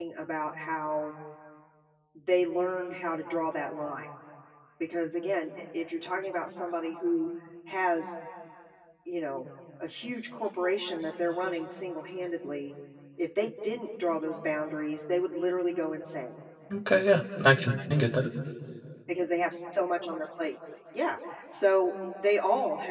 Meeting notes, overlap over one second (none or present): none